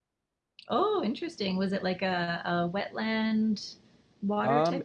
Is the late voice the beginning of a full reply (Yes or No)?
Yes